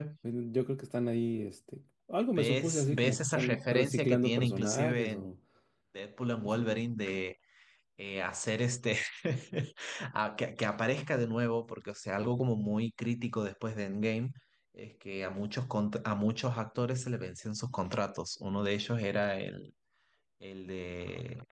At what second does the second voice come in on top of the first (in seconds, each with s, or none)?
2.3 s